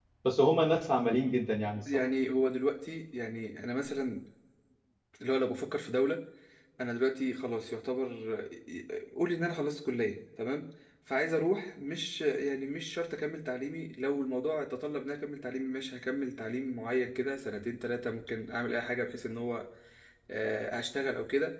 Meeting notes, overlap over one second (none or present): none